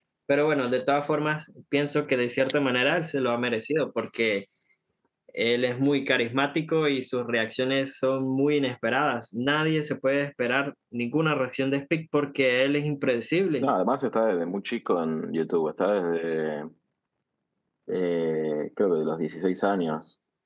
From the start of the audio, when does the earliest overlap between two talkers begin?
none

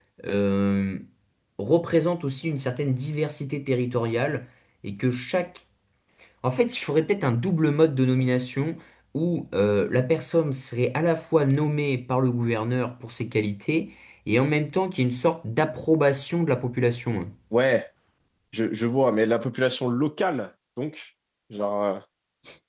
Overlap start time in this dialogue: none

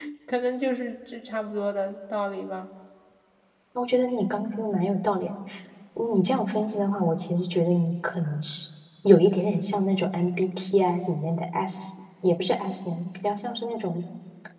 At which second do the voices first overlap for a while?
none

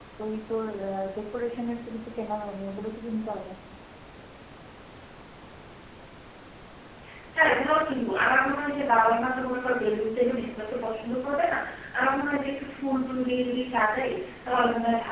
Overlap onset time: none

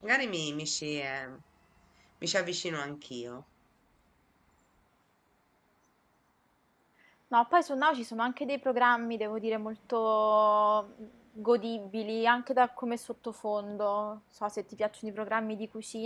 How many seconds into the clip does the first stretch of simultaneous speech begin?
none

